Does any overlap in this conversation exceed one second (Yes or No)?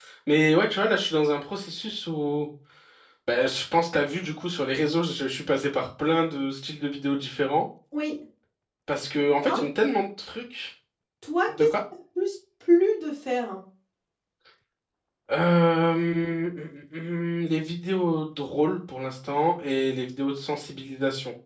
No